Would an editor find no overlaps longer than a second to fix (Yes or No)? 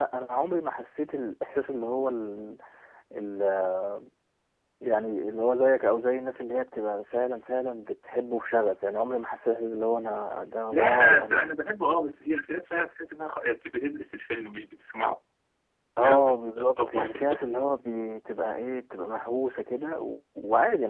No